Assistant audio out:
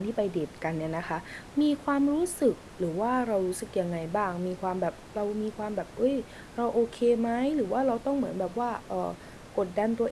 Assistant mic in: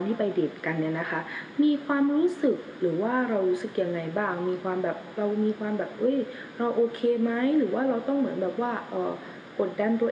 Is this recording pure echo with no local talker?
Yes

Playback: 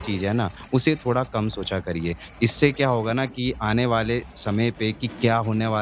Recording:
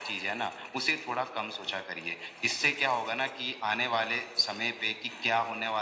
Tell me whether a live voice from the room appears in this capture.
No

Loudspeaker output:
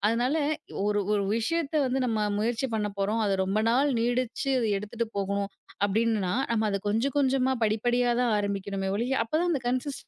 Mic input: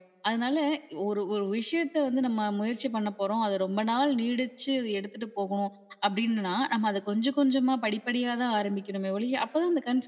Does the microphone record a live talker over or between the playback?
No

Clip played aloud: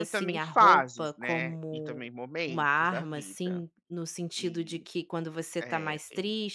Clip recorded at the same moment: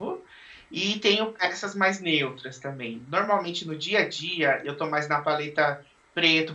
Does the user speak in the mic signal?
Yes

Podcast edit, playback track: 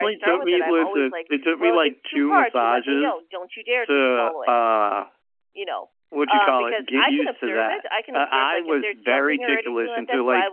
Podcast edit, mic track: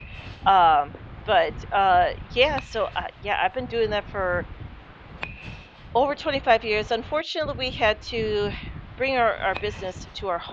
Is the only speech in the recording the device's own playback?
No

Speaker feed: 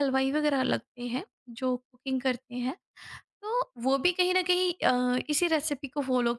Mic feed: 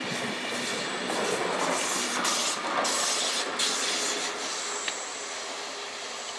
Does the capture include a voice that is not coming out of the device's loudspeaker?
No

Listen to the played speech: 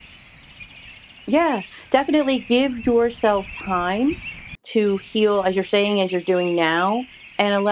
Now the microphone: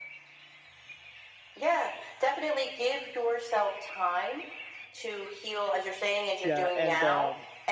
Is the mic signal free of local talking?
No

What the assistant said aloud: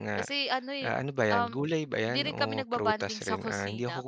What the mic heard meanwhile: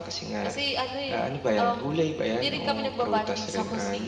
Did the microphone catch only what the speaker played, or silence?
Yes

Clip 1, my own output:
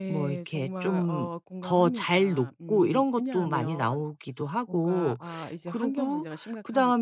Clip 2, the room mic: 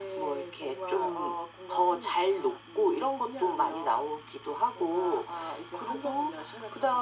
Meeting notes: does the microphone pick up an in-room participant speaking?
No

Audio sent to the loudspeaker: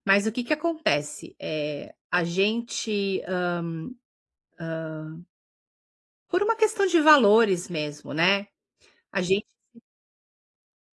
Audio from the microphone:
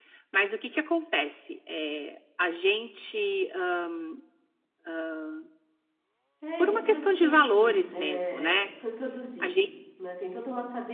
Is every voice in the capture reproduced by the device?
No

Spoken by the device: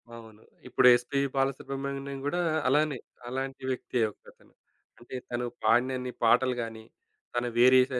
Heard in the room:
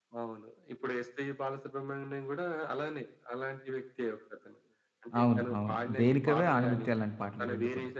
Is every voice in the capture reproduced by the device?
No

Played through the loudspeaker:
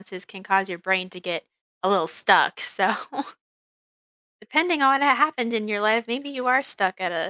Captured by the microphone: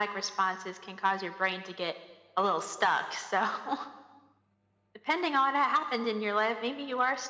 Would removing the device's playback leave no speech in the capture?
Yes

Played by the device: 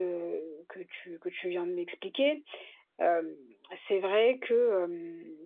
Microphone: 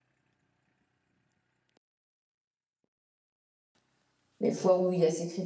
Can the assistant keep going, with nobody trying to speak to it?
No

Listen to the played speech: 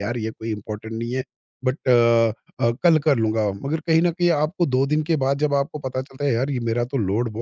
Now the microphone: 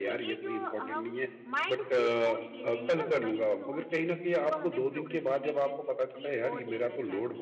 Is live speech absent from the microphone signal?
No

